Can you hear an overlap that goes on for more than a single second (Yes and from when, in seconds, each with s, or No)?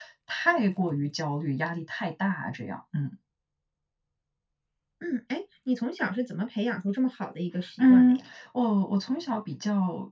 No